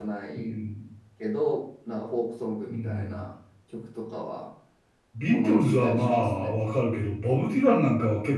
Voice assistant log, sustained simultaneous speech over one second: present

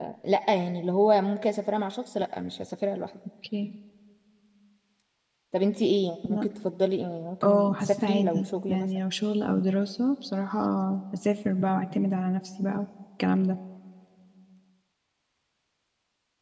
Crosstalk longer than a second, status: present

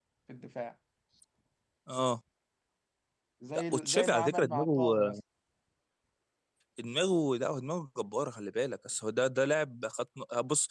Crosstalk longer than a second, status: present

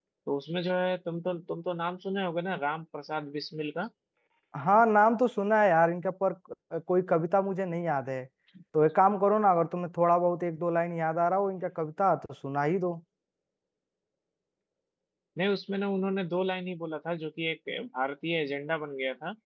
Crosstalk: none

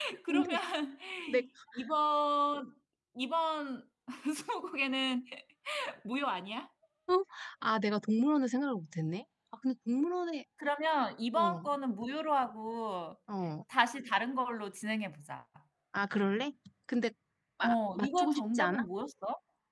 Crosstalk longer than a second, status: present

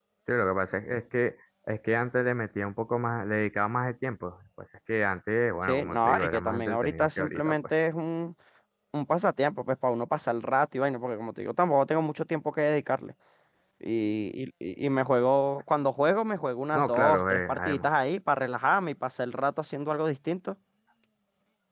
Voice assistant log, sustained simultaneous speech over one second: present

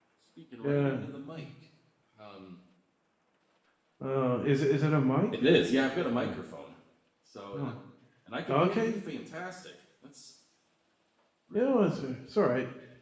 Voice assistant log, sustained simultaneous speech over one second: none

